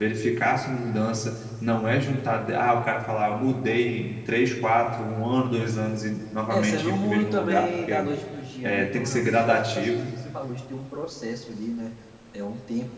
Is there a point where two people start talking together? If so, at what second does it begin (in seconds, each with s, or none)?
6.5 s